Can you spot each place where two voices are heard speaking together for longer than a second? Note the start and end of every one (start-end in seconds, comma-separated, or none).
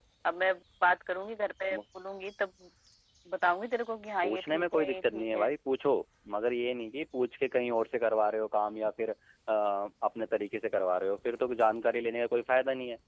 4.2-5.5